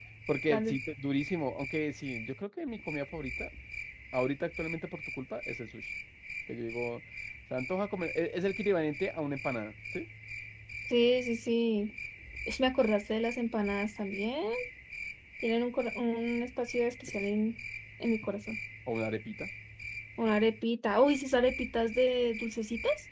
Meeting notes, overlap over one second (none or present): none